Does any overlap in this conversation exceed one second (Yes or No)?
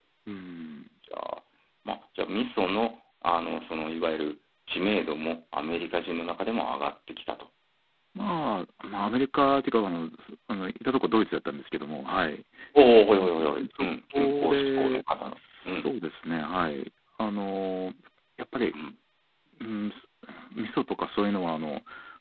Yes